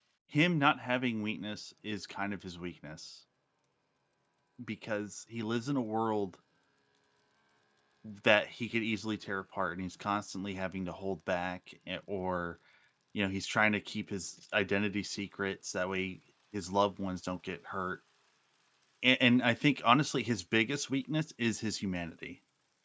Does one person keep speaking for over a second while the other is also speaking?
No

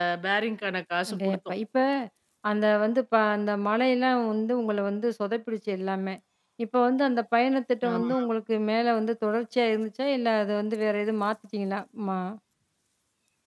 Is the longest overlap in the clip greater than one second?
No

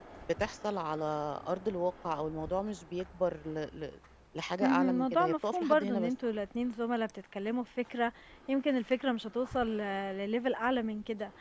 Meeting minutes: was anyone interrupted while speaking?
Yes, from 4.6 s

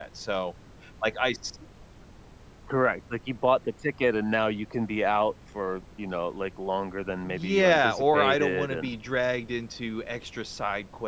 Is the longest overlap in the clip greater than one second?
Yes, from 7.2 s

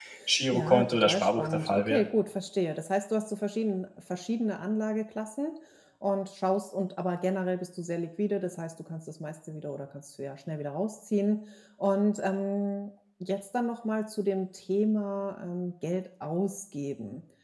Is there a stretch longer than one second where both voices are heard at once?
Yes, from 0.5 s

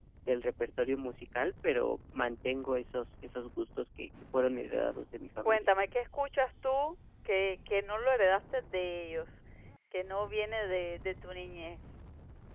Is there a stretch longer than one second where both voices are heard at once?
No

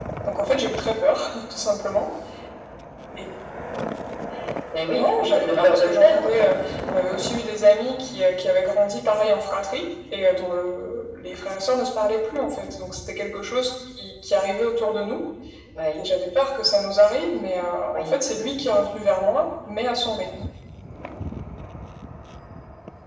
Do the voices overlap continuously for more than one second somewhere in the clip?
Yes, from 5.0 s

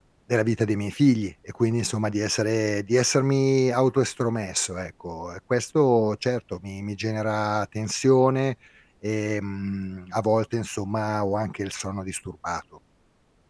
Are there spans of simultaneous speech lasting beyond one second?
No

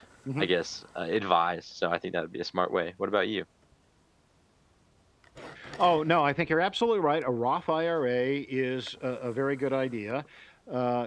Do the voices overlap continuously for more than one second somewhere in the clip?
No

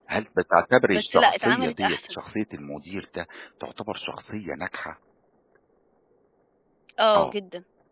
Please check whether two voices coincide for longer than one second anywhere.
Yes, from 0.9 s

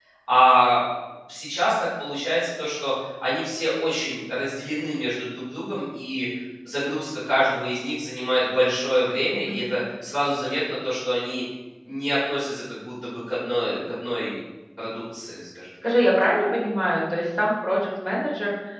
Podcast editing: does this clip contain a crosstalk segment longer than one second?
No

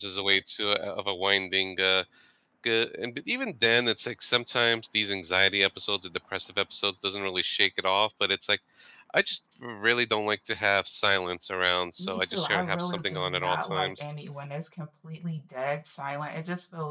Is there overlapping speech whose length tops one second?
Yes, from 12.0 s

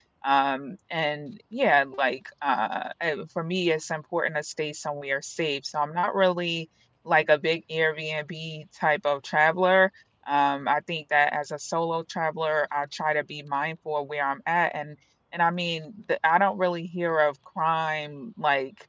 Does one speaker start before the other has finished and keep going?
No

